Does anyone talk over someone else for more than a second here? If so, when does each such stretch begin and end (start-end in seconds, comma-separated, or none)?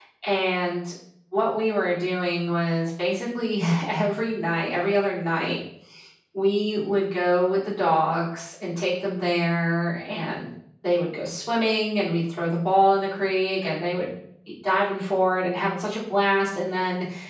none